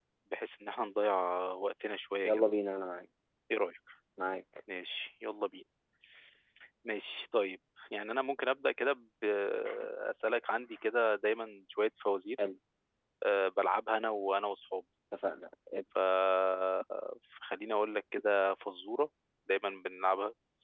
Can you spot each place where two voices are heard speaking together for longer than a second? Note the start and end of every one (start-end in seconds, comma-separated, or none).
none